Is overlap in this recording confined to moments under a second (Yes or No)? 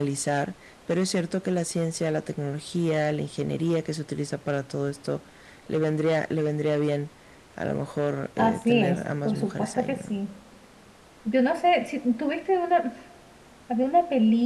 No